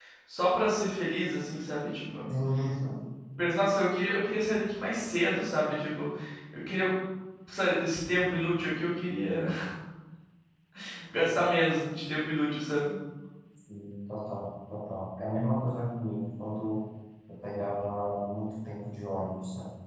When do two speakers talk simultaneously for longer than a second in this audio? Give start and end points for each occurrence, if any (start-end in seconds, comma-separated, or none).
none